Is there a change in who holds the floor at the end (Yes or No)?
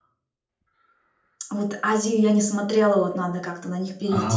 Yes